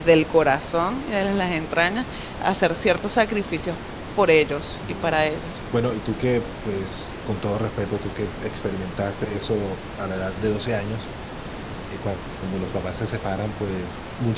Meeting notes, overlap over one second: none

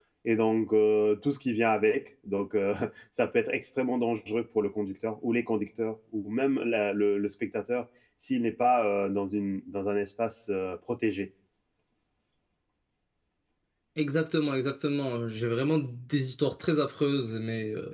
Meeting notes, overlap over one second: none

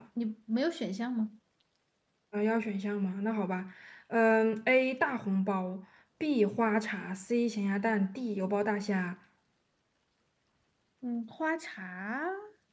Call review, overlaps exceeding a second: none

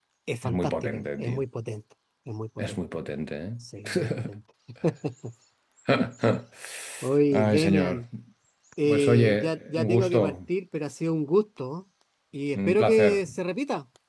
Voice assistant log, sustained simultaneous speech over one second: present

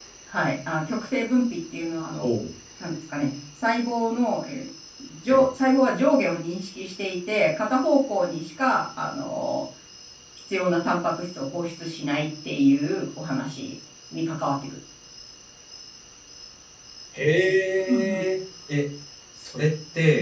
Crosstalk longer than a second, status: none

